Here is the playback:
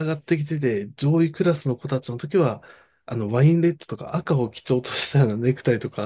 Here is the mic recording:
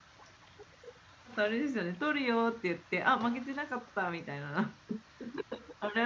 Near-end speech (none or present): present